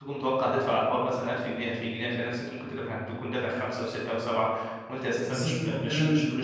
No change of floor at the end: No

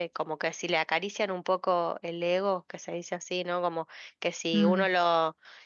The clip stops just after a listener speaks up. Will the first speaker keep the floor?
Yes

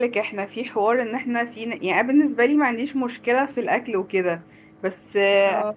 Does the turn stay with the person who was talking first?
Yes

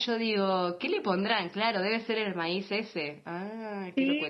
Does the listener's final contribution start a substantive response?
Yes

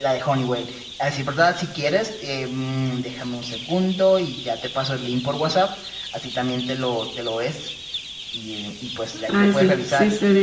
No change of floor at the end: No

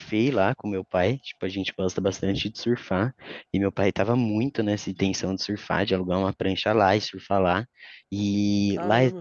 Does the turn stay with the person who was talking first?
Yes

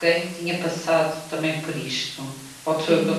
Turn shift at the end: Yes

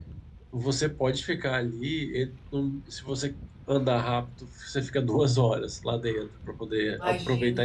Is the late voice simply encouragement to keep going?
Yes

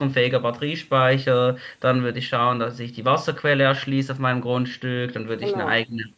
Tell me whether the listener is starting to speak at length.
No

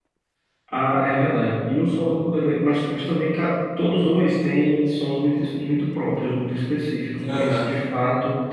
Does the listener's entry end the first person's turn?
No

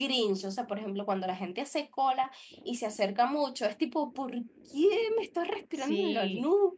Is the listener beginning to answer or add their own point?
Yes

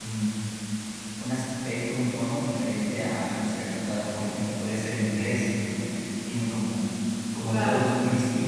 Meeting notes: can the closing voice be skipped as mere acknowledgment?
Yes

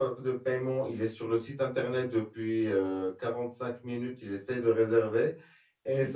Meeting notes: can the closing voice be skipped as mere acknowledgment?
Yes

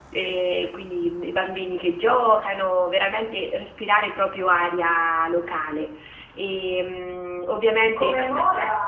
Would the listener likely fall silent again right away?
No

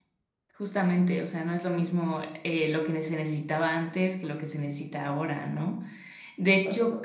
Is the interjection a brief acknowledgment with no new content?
Yes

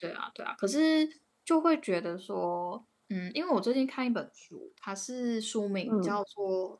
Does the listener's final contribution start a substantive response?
No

